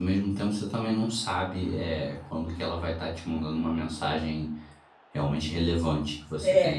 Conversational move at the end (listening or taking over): taking over